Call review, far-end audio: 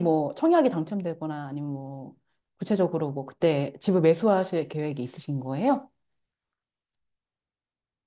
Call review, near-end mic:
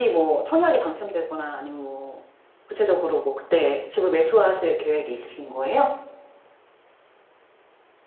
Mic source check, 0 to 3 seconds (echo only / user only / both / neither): echo only